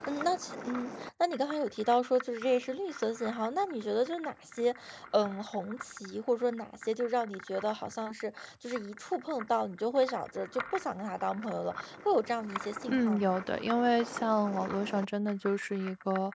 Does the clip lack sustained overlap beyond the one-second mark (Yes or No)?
Yes